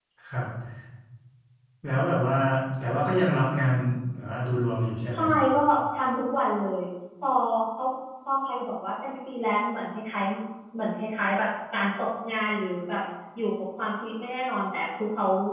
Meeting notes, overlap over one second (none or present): none